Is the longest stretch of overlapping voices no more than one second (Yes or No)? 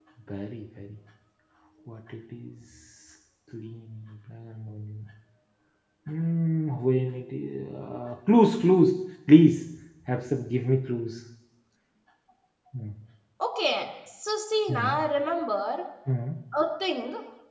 Yes